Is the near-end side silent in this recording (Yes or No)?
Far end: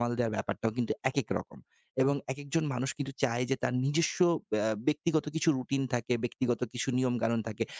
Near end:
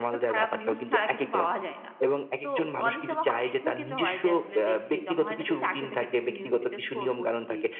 No